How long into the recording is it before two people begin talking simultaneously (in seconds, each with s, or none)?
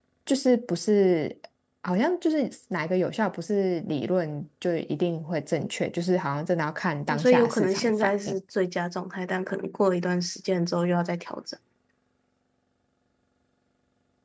7.1 s